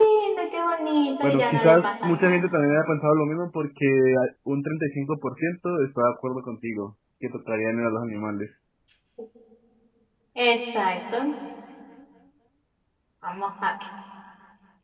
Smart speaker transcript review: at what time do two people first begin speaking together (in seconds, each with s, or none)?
1.2 s